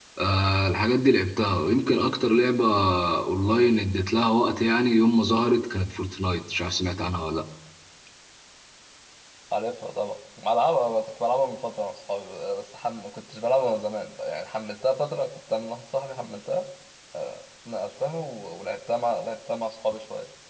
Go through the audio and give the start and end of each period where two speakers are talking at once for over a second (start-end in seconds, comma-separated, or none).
none